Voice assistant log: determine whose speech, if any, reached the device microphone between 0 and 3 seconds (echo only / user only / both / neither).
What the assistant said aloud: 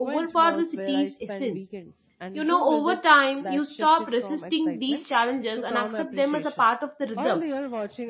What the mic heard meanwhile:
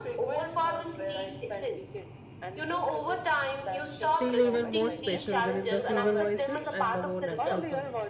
echo only